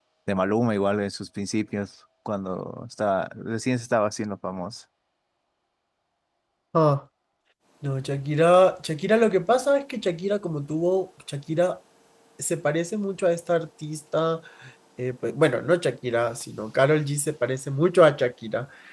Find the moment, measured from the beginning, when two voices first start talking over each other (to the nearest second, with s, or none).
none